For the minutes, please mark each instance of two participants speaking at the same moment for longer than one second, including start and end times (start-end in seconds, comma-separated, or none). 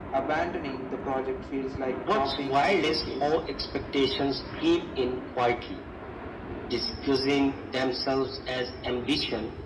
2.0-3.3